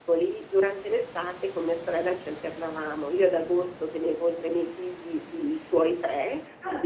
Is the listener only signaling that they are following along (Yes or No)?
Yes